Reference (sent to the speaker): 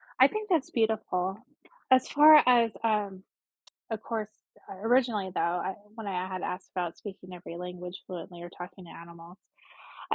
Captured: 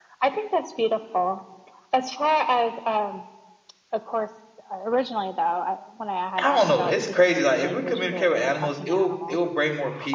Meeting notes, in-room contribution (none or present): present